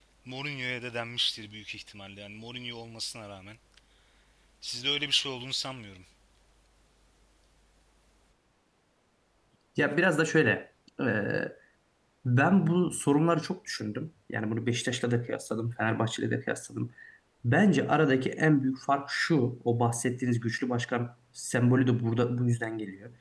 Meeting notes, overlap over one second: none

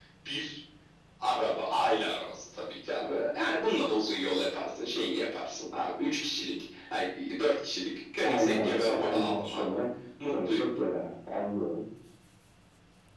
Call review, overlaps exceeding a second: present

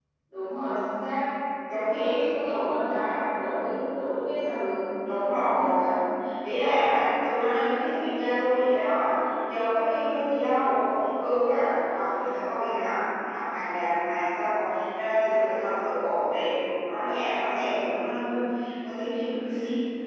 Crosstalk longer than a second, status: none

